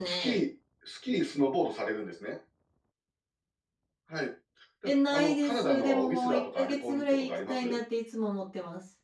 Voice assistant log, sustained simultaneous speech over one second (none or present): present